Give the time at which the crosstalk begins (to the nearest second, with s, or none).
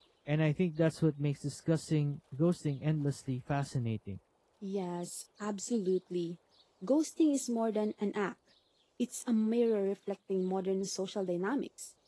none